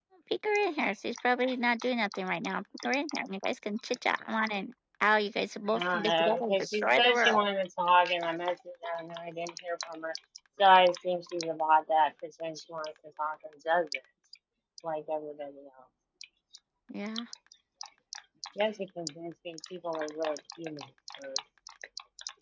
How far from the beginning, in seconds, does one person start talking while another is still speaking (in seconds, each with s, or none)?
5.7 s